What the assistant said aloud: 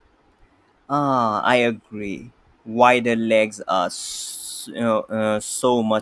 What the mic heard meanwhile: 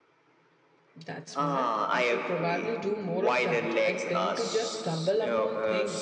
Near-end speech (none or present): present